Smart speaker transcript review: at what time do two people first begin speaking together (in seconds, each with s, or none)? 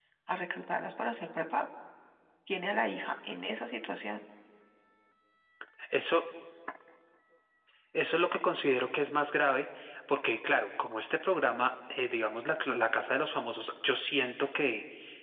none